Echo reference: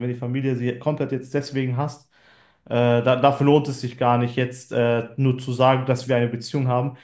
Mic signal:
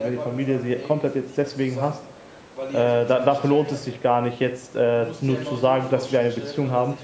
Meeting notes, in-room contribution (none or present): present